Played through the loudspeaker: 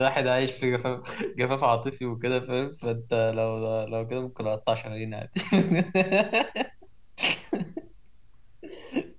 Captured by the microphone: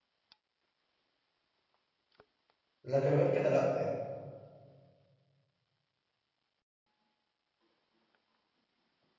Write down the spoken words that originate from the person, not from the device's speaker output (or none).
لكن غير كده لا يعني